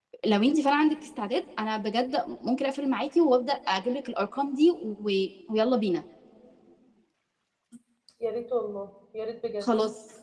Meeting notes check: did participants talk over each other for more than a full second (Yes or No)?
No